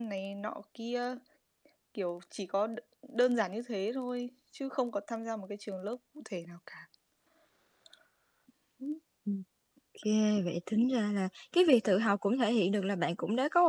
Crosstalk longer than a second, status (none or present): none